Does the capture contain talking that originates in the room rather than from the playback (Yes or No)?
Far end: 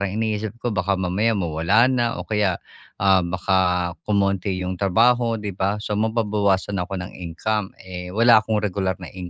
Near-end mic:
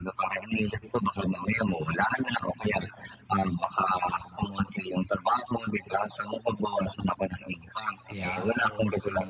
Yes